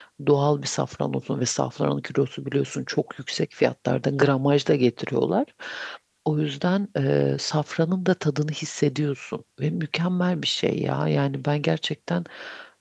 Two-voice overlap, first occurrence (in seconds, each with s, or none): none